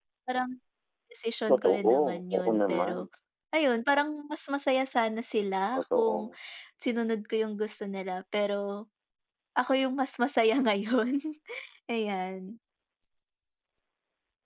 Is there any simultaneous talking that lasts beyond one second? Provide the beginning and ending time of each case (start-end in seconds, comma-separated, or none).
1.5-3.1